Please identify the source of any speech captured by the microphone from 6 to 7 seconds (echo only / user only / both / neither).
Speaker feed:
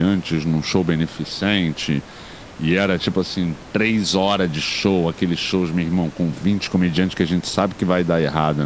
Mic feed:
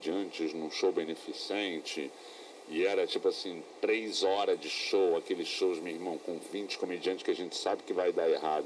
echo only